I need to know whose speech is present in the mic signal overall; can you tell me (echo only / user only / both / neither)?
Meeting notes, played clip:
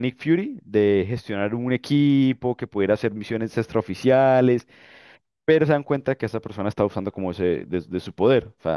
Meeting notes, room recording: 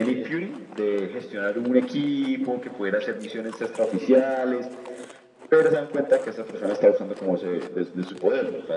echo only